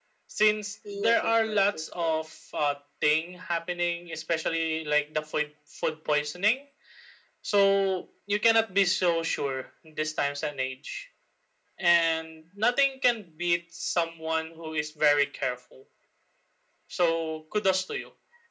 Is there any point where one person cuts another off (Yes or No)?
Yes